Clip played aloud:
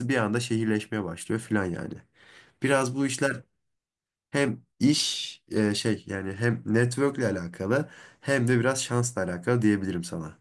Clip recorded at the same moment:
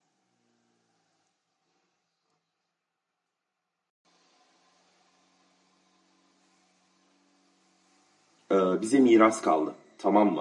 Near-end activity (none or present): present